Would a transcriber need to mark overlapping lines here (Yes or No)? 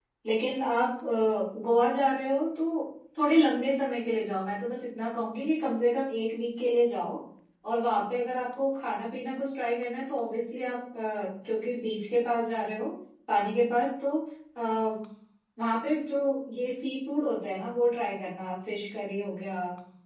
No